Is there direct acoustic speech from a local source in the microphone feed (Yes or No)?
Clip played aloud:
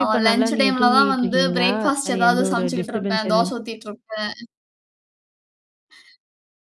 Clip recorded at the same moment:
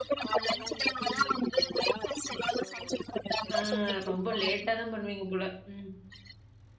Yes